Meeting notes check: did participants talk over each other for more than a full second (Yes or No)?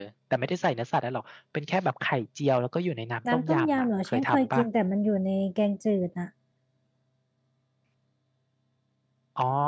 Yes